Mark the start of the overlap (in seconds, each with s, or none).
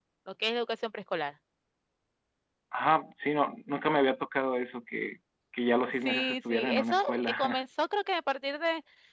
6.0 s